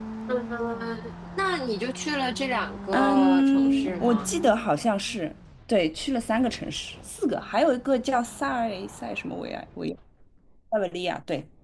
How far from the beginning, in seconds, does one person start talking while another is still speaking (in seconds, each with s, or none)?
2.9 s